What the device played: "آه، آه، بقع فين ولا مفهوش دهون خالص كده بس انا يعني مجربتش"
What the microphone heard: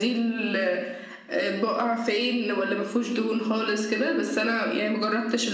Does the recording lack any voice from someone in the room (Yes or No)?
Yes